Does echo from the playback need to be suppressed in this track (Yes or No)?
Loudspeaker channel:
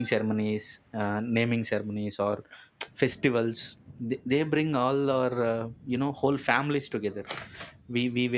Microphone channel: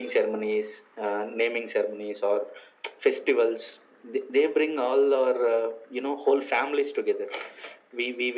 Yes